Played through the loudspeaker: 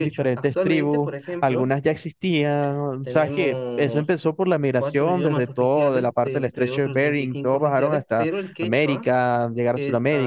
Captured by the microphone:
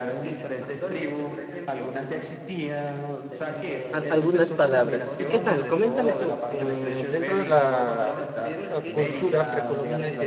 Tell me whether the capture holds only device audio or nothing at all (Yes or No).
No